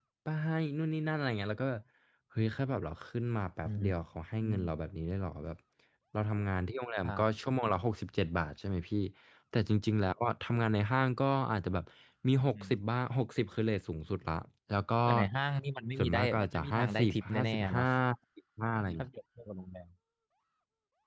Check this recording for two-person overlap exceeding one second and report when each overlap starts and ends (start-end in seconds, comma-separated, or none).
16.0-17.9